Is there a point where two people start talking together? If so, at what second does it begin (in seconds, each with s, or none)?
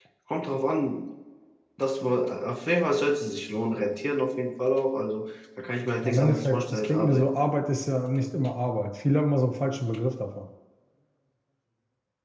6.0 s